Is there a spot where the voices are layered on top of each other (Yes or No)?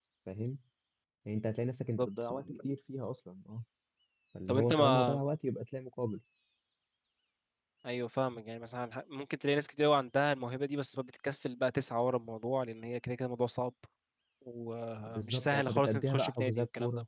Yes